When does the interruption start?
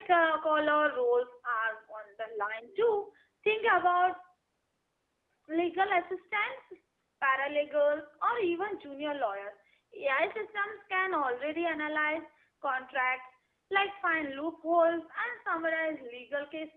none

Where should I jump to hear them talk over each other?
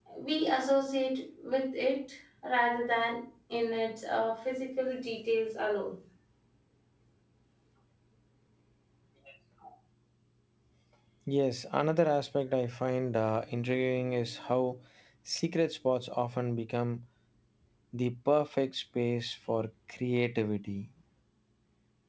none

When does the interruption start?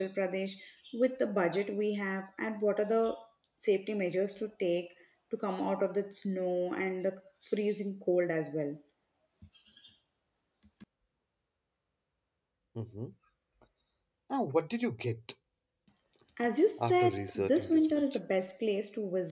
17 s

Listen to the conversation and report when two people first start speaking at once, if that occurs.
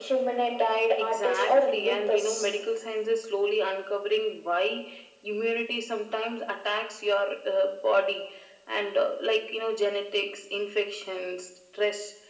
1 s

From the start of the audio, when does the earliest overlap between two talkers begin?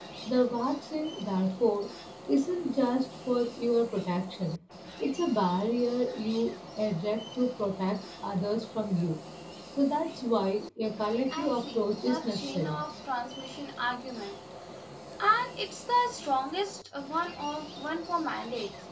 11 s

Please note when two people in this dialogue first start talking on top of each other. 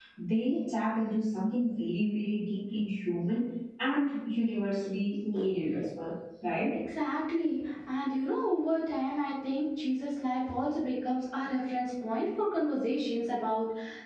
none

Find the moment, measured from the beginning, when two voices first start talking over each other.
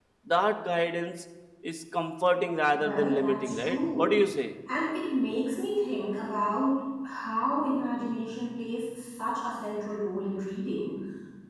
3 s

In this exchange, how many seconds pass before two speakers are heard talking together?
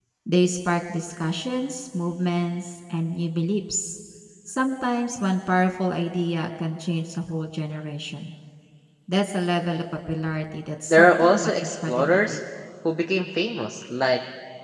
11 s

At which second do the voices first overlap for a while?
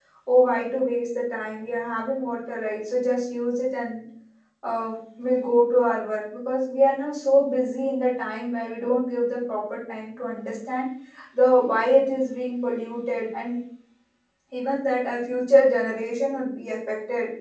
none

